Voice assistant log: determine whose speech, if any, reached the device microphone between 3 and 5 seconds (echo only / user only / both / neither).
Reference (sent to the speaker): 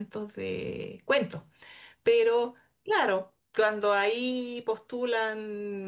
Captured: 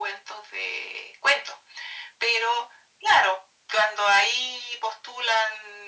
echo only